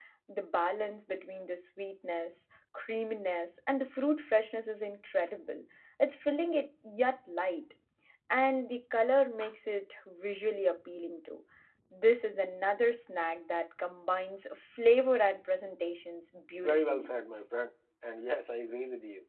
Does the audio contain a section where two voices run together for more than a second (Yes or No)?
No